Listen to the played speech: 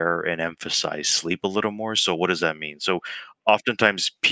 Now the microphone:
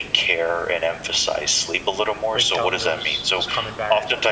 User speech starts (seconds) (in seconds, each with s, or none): 2.3 s